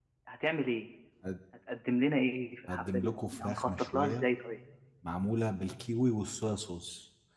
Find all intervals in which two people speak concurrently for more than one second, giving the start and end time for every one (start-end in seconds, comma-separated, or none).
2.7-4.3